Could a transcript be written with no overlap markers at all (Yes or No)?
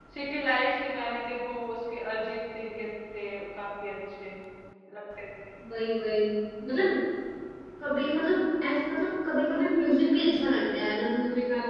Yes